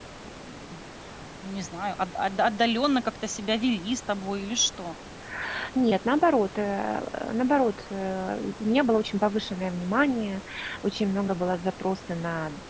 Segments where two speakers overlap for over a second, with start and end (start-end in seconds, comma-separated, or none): none